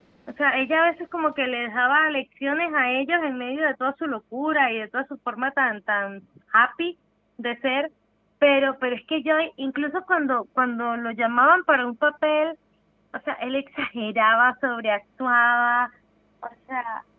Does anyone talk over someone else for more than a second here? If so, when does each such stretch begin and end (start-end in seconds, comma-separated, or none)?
none